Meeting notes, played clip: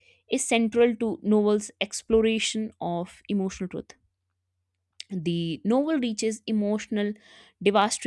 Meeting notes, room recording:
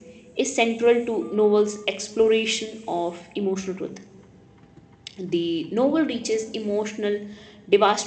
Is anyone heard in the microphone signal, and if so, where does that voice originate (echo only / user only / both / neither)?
echo only